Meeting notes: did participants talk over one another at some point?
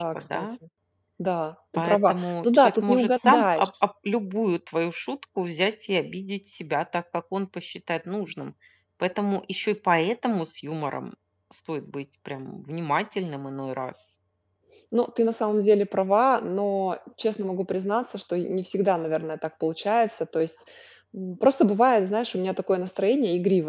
Yes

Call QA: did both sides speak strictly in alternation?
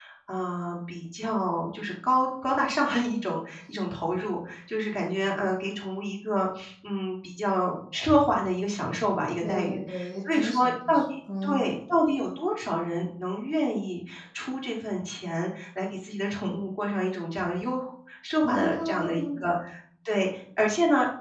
No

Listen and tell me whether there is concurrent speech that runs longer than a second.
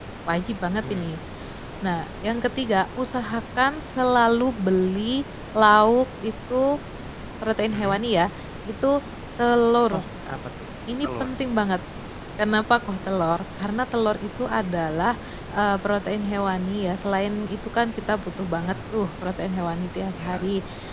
No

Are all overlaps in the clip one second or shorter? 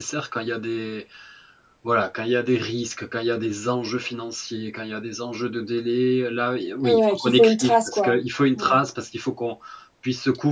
No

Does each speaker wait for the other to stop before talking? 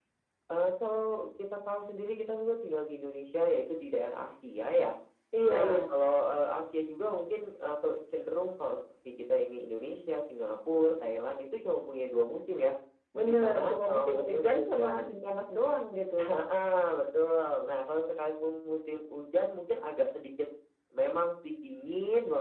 No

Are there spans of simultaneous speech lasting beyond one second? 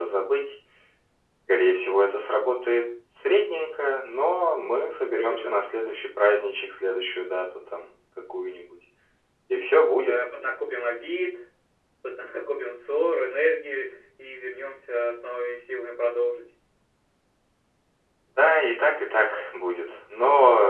No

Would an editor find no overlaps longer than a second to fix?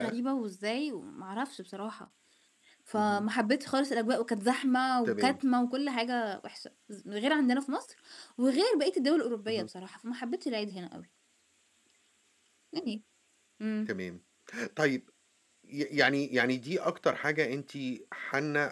Yes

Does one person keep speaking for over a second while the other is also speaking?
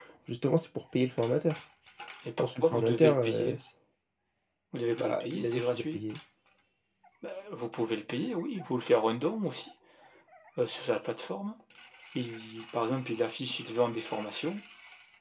Yes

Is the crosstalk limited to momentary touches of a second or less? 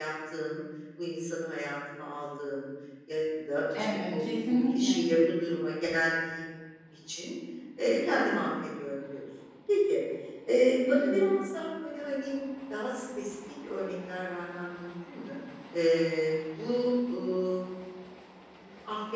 No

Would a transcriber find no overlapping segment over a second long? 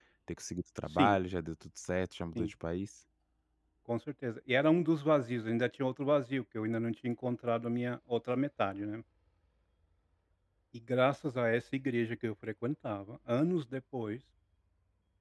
Yes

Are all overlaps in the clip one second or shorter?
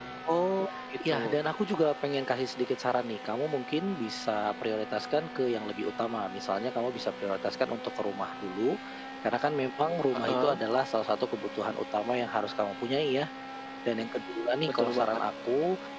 Yes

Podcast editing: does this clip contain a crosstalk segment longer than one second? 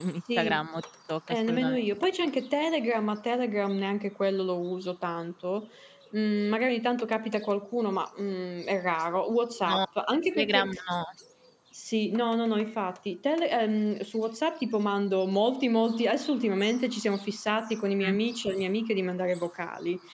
No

